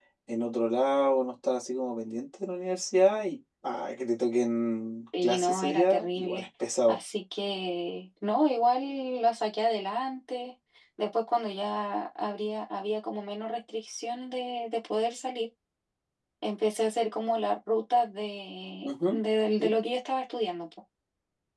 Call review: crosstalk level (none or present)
present